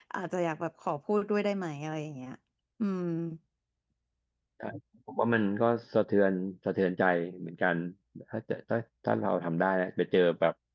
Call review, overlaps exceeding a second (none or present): none